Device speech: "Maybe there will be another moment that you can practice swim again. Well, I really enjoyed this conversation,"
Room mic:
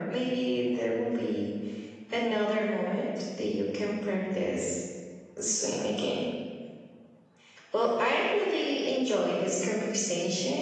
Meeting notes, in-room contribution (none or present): none